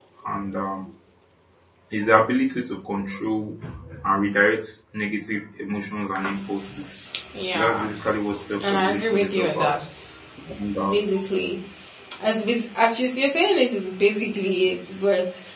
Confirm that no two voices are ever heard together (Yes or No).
No